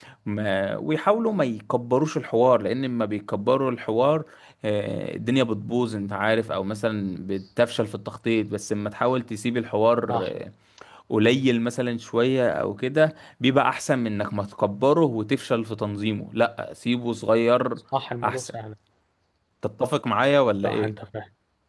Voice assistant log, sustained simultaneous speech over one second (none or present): none